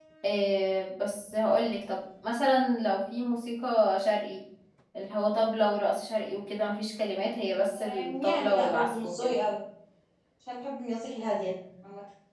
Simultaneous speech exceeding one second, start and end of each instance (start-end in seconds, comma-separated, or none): 7.8-9.3